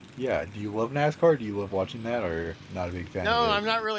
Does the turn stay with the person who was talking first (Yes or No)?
No